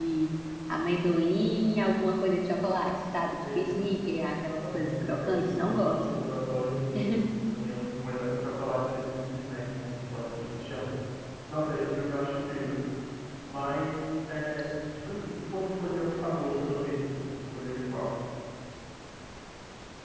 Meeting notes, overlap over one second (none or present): present